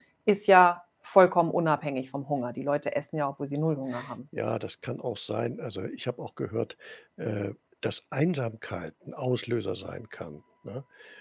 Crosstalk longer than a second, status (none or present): none